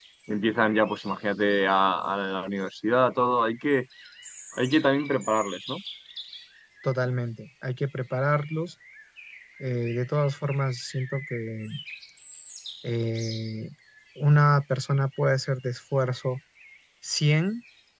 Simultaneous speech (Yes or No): No